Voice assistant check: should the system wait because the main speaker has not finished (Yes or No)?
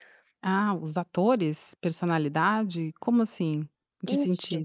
No